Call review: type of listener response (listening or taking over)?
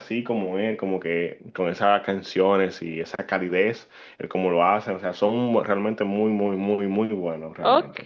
taking over